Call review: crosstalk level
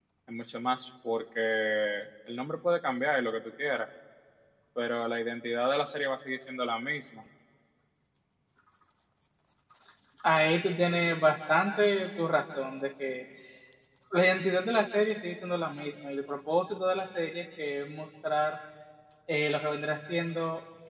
none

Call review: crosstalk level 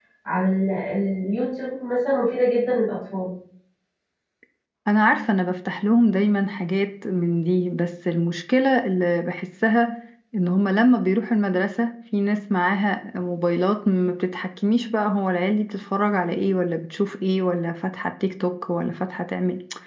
none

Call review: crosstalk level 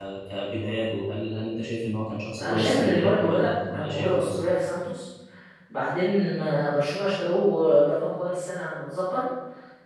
present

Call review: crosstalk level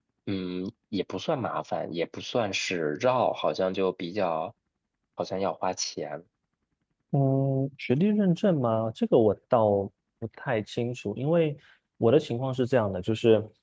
none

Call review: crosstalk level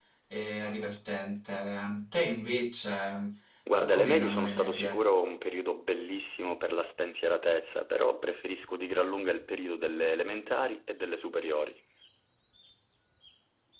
present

